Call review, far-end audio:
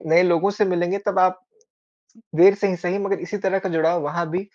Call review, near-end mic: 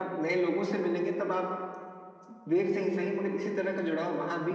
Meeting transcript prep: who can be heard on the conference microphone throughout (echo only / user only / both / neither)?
echo only